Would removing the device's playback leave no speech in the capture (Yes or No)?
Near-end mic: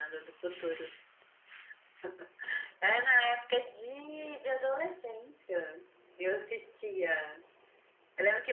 Yes